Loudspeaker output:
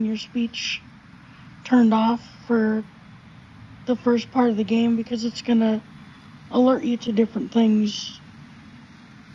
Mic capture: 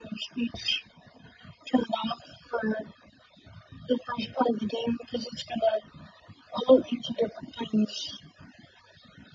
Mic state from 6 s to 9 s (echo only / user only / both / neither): echo only